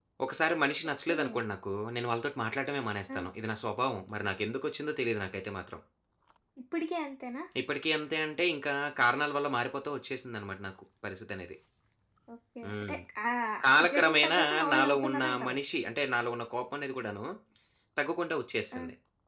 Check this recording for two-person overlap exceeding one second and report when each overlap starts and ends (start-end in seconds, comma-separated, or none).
13.8-15.6